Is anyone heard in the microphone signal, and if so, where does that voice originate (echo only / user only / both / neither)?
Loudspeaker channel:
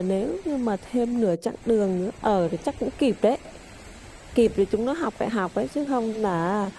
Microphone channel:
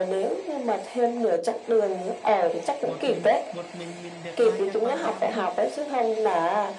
both